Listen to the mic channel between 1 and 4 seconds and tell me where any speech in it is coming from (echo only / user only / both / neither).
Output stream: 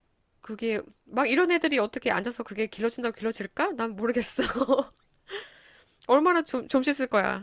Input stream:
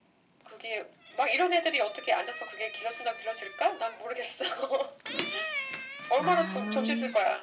echo only